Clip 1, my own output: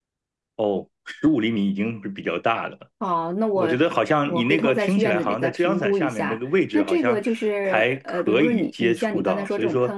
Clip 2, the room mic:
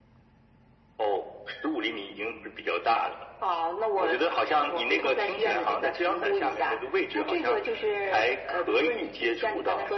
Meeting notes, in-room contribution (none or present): none